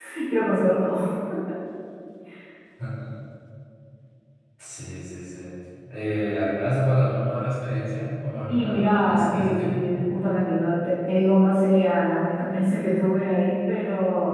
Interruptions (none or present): present